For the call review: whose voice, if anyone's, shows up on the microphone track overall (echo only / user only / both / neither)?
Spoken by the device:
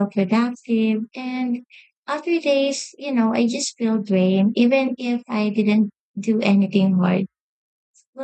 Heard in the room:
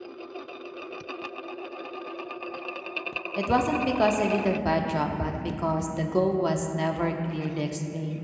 user only